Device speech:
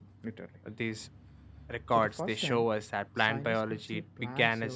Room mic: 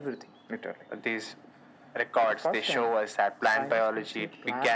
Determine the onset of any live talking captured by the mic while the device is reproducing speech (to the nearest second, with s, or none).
none